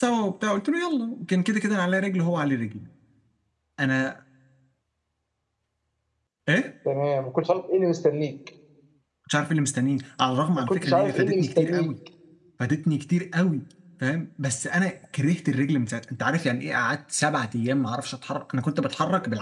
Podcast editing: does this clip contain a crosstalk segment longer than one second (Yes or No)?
Yes